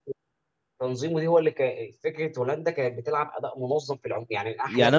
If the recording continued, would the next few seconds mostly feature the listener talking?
Yes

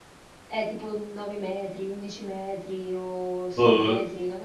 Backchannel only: No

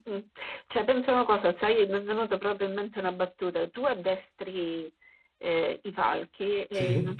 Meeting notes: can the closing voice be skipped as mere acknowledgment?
Yes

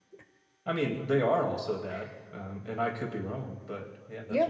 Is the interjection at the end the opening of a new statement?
Yes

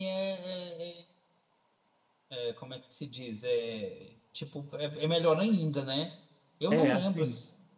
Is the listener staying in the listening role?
No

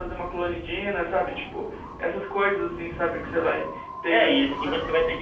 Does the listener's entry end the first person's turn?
Yes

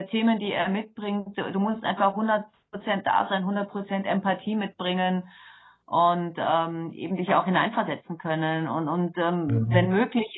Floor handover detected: No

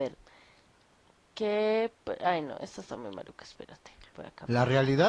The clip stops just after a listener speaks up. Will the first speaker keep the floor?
No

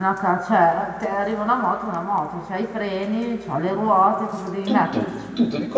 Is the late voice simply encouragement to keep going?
No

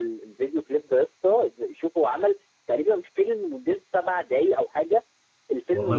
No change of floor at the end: Yes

